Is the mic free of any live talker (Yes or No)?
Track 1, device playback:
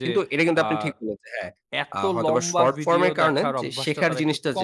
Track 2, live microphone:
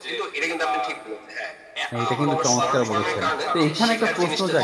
No